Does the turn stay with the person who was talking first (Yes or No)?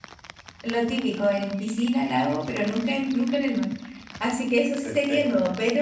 Yes